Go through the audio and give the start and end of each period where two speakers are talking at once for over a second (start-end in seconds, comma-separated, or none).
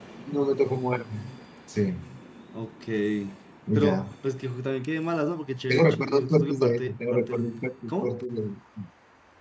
5.7-7.5